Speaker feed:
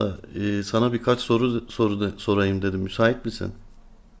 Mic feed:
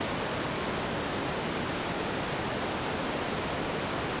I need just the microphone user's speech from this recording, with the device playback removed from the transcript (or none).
none